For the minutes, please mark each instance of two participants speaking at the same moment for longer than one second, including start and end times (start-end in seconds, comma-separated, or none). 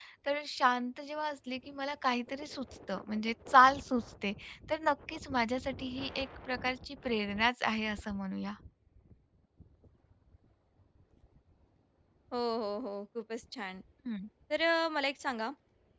none